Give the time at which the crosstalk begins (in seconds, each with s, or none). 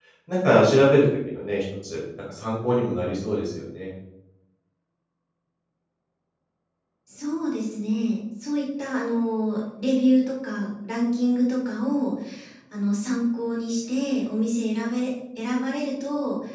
none